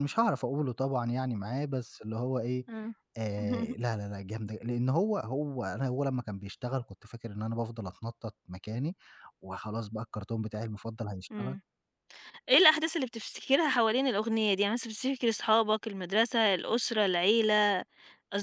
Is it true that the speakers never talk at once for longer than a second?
Yes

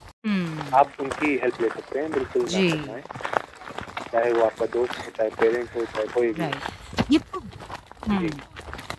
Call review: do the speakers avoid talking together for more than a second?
Yes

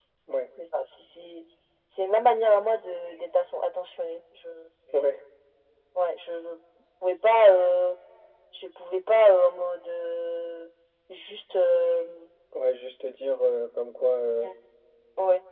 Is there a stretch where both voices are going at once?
No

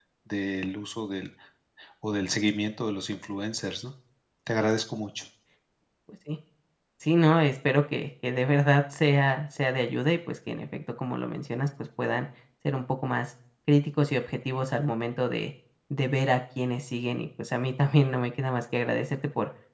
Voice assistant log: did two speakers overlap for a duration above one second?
No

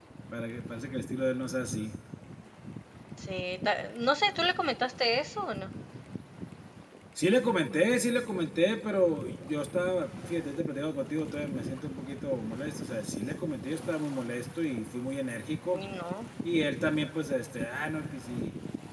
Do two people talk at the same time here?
No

